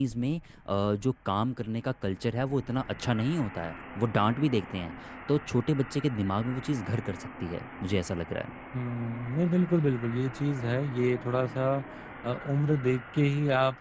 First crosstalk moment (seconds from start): none

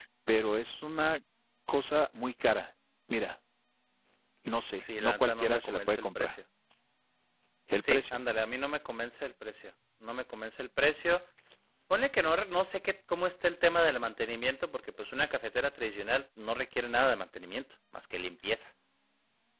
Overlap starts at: 4.8 s

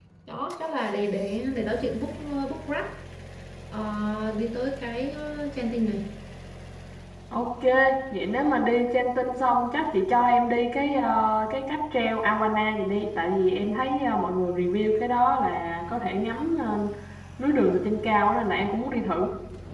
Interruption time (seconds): none

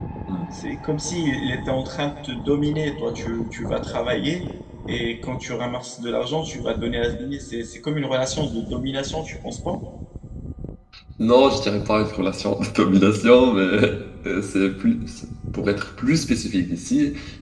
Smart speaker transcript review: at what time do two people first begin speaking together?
none

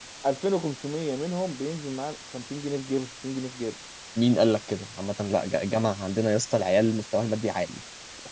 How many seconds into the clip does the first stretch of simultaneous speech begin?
none

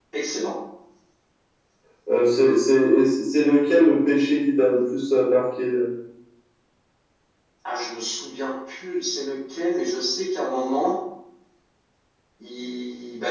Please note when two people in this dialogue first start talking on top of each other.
none

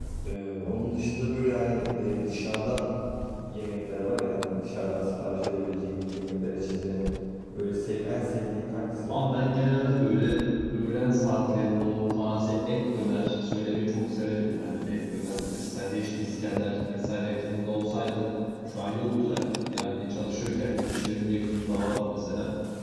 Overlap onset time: none

